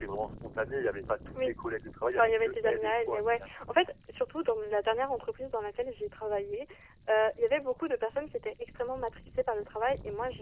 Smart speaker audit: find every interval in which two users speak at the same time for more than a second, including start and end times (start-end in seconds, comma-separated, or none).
2.1-3.6